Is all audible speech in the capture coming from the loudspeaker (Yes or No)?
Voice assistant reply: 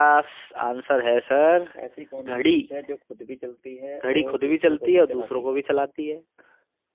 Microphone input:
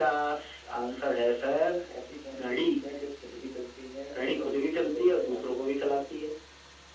Yes